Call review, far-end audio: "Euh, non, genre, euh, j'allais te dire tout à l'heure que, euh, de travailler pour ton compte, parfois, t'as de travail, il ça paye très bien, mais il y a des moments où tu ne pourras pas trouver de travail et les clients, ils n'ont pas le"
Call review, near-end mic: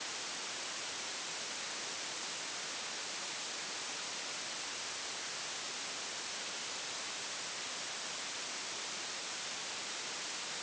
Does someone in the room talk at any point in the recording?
No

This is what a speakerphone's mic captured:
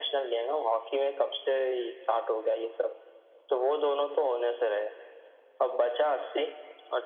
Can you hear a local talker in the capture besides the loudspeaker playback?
No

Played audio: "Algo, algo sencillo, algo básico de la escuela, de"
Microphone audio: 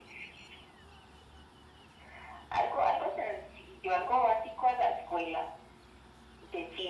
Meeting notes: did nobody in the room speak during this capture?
Yes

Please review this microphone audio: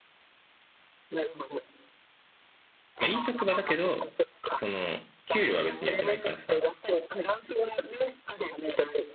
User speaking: Yes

